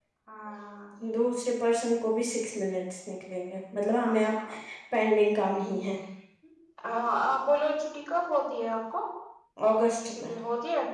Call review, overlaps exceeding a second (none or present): none